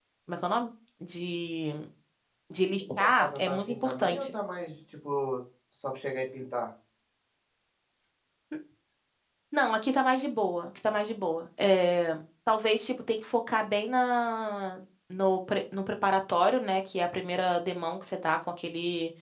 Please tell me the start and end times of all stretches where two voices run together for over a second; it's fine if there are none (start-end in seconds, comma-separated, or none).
3.0-4.3